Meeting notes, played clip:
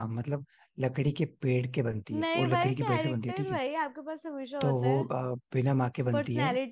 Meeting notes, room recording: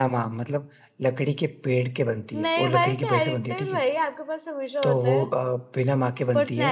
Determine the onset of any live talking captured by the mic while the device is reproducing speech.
none

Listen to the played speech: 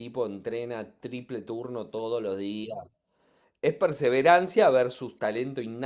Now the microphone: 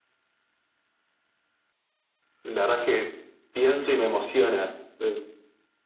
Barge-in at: 2.4 s

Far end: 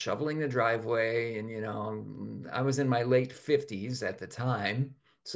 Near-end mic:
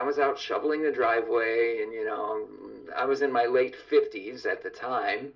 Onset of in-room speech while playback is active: none

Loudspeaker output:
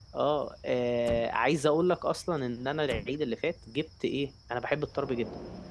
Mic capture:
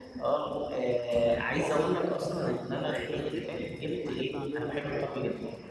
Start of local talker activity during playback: 2.7 s

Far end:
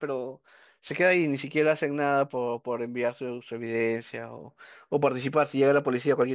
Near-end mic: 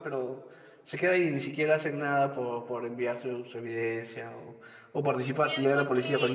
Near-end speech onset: 5.4 s

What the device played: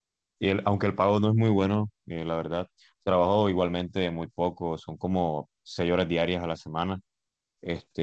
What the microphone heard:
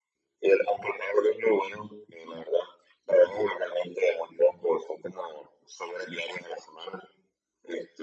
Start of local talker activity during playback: none

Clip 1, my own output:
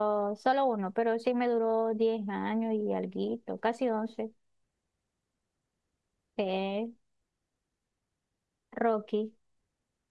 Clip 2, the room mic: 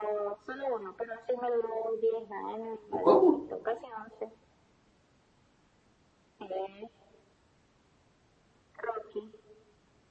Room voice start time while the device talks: 2.9 s

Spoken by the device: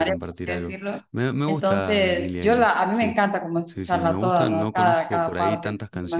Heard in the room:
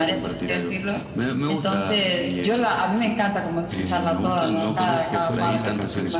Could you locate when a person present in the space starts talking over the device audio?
3.7 s

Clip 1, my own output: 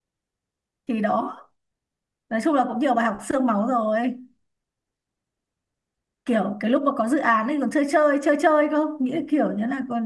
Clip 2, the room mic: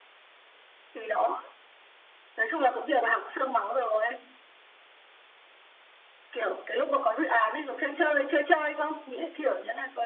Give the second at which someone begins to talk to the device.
none

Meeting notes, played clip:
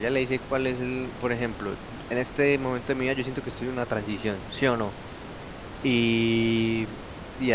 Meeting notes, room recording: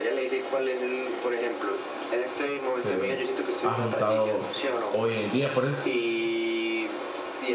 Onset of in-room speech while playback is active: 2.7 s

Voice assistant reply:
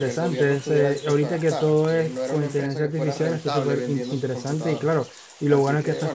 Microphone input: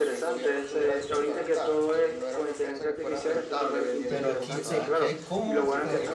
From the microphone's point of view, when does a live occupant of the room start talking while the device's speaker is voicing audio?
4.1 s

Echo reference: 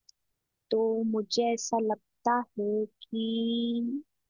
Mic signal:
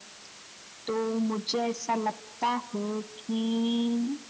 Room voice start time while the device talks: none

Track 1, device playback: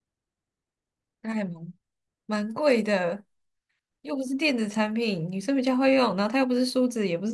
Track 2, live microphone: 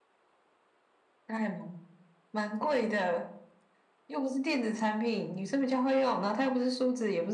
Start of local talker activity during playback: none

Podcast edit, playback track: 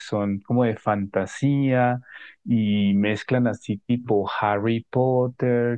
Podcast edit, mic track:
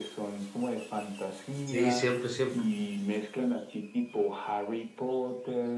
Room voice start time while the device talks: 1.6 s

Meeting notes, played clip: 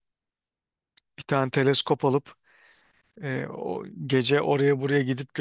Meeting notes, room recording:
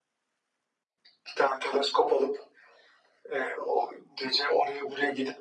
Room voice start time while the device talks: none

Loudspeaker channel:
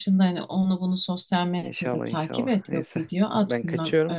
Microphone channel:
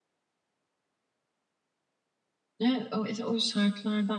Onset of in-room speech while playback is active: 2.6 s

